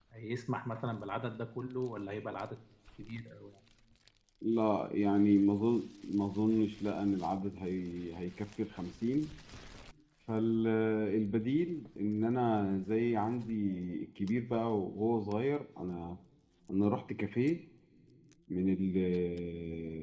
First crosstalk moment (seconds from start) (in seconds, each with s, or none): none